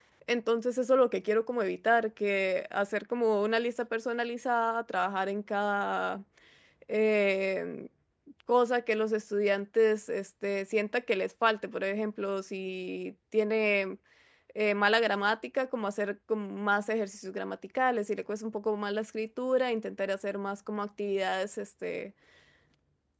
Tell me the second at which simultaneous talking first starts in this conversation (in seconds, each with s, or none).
none